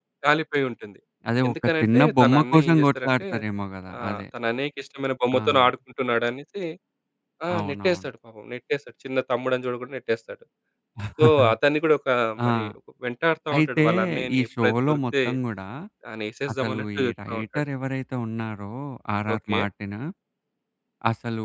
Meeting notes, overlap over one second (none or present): present